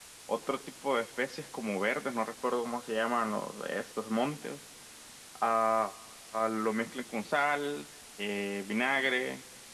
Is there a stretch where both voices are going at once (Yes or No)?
No